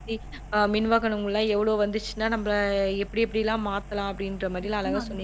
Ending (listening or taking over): taking over